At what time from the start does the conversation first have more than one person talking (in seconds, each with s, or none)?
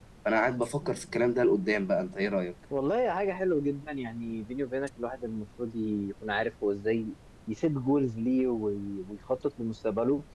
none